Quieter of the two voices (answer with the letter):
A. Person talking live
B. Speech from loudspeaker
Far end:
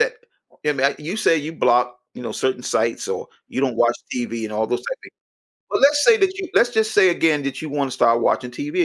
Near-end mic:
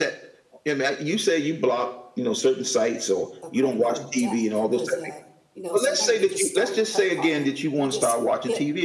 A